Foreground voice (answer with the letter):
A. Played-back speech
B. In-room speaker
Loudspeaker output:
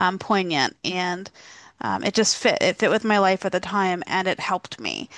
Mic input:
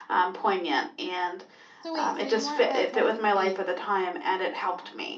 A